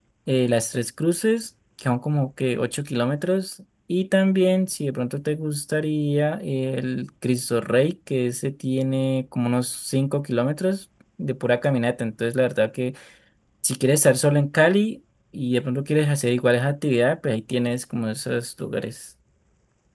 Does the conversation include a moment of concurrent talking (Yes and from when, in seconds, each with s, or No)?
No